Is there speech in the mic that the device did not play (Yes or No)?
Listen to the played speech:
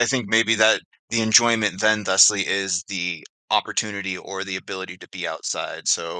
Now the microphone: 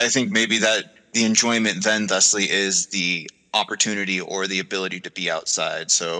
No